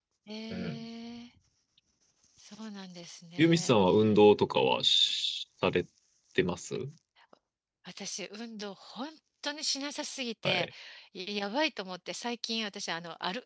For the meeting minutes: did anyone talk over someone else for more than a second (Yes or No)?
No